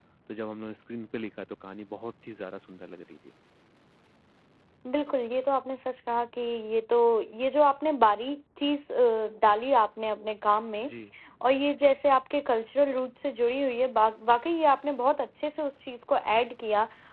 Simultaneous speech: No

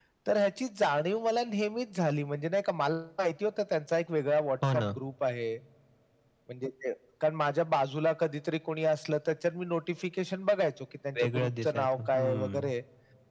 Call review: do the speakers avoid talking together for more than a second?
No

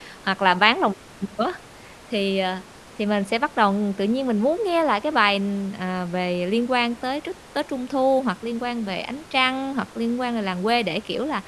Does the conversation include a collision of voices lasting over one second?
No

